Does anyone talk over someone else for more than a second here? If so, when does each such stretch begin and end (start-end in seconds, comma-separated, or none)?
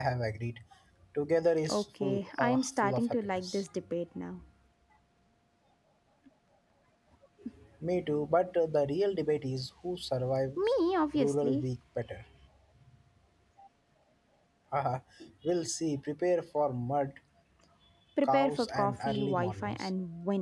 1.7-3.6, 18.2-19.9